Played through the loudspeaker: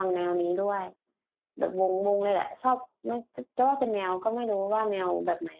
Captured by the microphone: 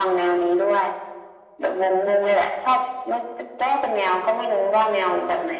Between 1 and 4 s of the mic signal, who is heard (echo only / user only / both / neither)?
echo only